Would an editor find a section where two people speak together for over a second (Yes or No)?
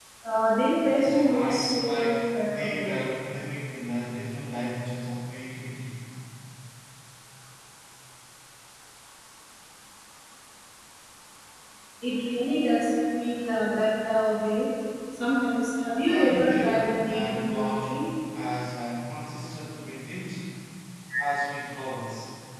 Yes